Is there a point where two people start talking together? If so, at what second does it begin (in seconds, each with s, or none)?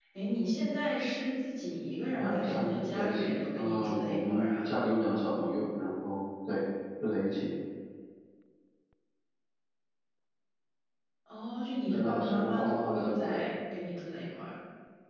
2.2 s